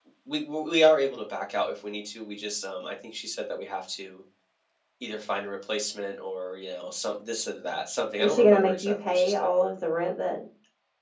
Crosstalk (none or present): present